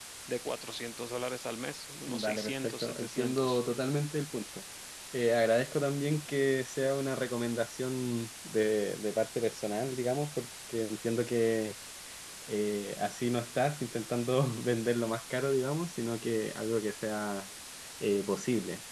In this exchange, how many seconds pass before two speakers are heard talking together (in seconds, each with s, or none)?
2.1 s